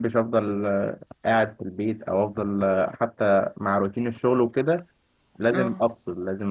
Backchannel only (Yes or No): Yes